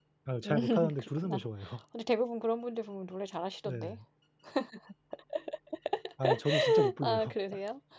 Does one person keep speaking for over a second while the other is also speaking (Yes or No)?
Yes